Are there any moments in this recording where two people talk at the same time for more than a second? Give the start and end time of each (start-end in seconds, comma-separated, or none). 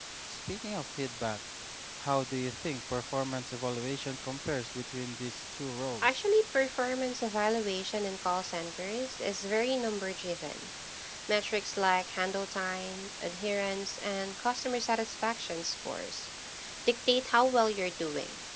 none